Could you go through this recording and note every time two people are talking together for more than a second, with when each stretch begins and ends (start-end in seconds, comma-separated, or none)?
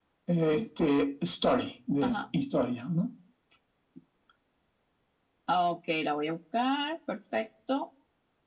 none